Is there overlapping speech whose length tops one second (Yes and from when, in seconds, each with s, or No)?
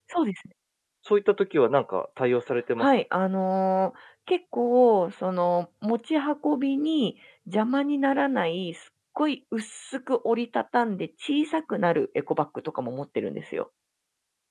No